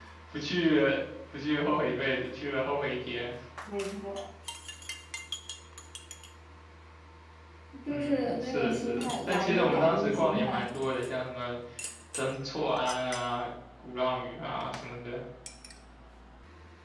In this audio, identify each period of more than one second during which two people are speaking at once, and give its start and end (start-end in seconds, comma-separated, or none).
7.9-10.7